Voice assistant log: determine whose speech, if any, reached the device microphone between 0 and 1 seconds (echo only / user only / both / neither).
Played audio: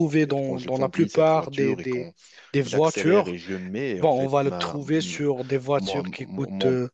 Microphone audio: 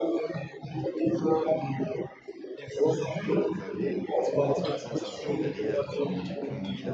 echo only